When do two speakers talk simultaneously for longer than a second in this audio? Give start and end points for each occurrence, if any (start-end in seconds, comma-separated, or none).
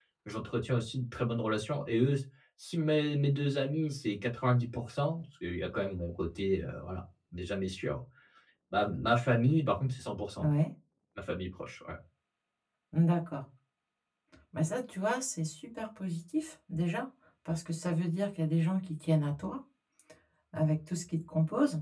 none